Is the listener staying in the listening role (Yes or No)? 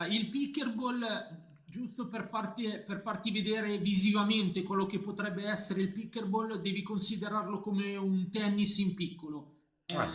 Yes